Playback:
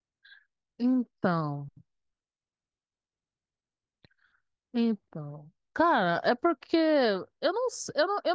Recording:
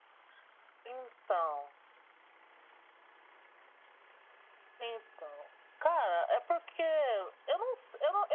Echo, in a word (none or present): present